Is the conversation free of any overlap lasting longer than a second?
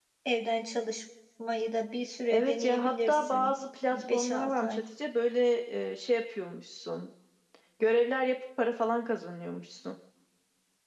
No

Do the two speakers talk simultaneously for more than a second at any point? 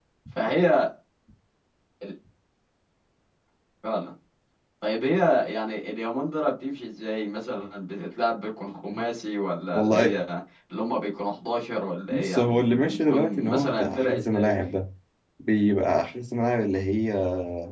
Yes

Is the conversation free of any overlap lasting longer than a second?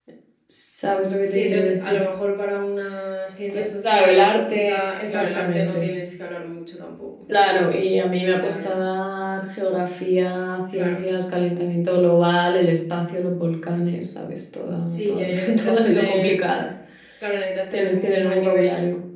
No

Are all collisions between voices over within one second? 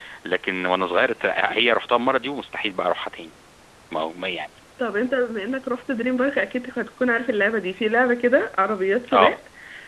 Yes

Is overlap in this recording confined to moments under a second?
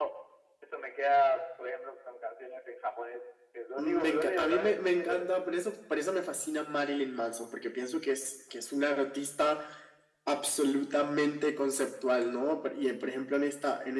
No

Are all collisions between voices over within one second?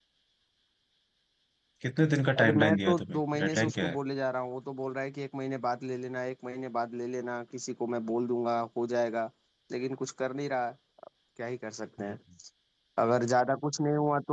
No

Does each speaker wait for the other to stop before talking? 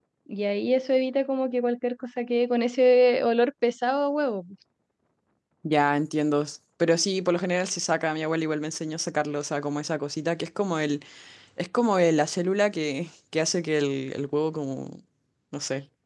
Yes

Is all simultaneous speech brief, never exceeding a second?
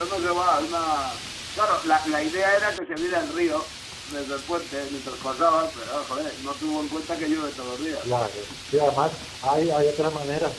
Yes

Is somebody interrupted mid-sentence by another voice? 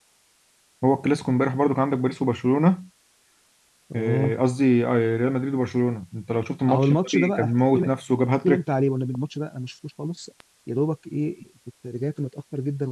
Yes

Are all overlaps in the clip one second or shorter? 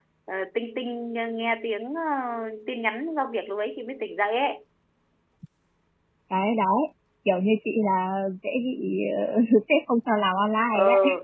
Yes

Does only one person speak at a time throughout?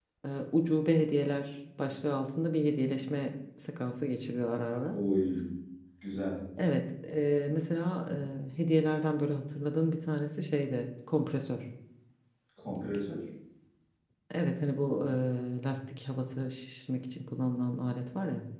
Yes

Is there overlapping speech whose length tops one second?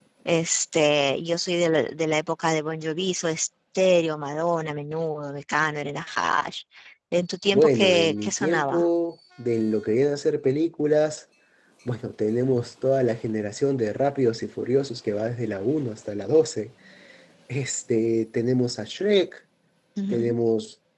Yes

